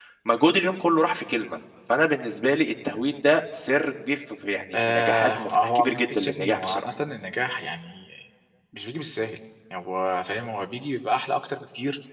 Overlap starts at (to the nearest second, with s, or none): 5 s